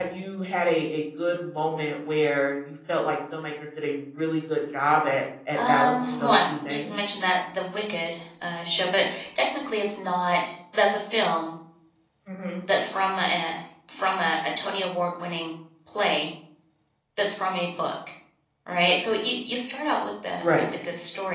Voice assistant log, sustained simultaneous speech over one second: present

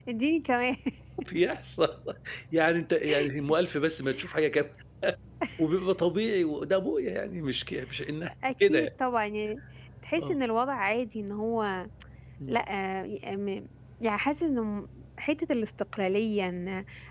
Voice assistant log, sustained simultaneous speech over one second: none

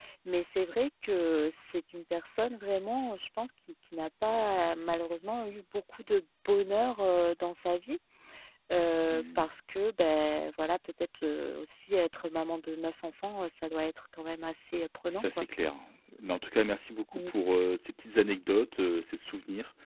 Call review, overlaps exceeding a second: none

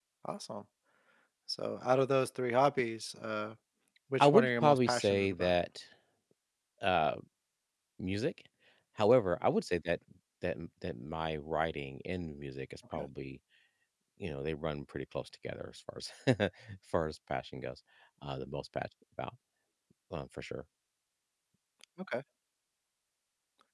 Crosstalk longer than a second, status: present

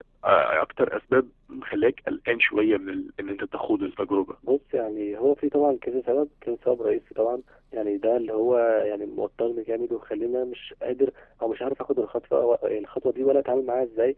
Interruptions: none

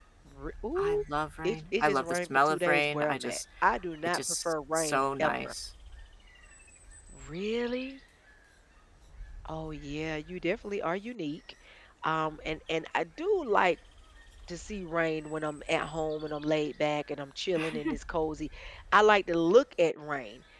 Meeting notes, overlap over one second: present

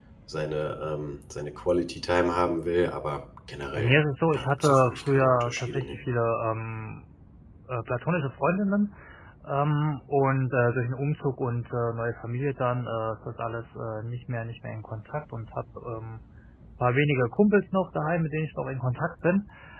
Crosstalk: present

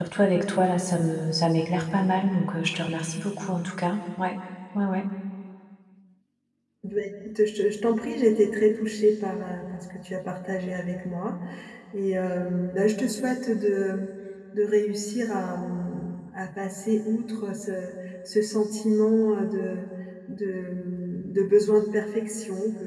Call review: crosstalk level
none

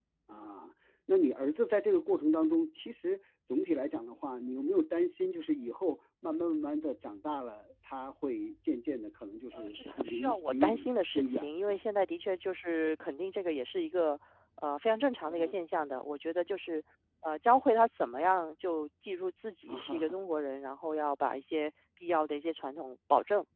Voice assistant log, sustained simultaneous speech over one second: present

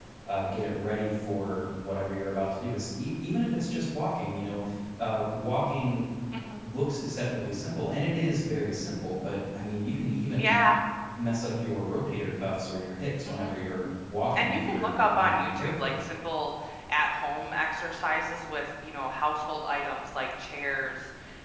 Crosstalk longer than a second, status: present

